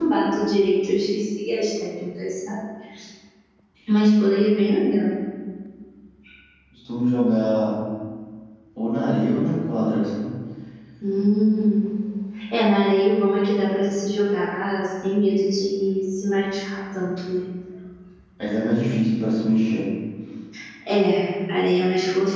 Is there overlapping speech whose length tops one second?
No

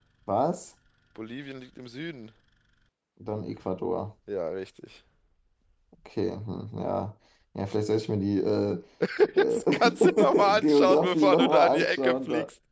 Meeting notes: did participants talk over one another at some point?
Yes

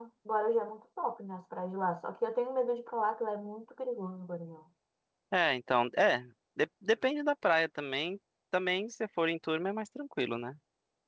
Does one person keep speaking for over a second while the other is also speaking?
No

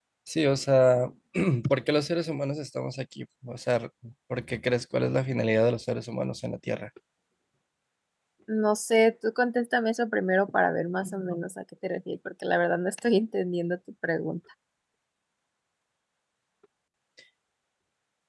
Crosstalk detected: No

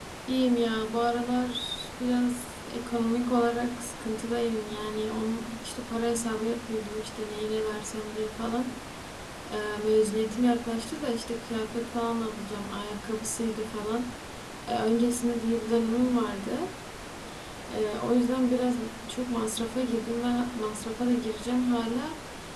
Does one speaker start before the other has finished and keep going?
No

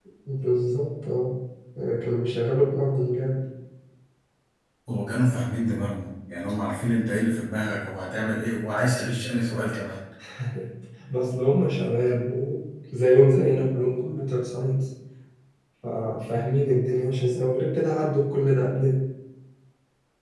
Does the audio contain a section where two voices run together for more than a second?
No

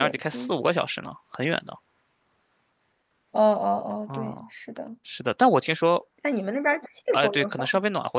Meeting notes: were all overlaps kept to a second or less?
Yes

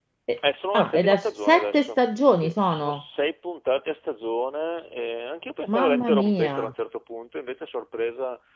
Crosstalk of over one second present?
Yes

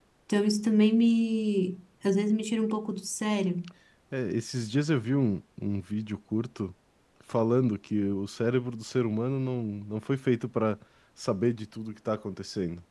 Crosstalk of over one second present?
No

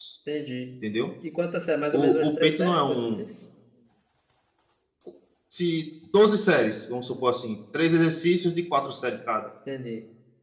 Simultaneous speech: Yes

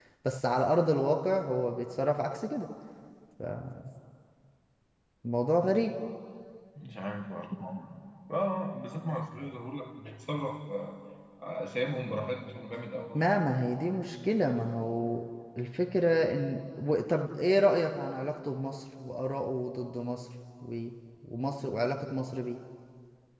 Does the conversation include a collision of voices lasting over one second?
No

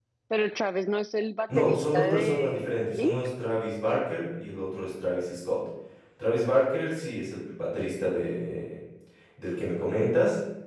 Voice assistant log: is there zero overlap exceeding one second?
No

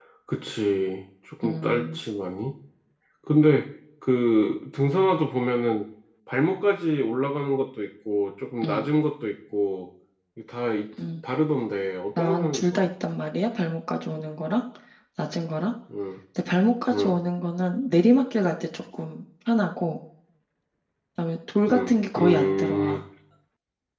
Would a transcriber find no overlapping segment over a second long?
No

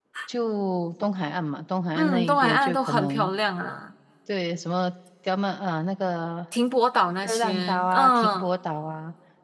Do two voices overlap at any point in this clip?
Yes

